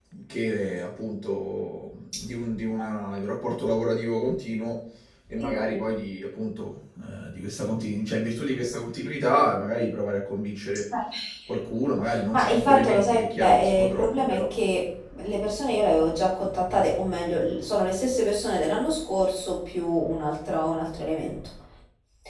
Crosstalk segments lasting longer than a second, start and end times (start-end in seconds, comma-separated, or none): 12.3-14.5